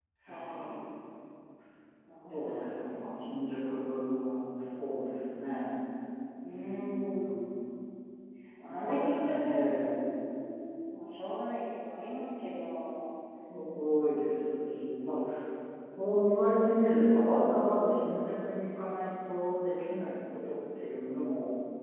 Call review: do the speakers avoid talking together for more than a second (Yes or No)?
No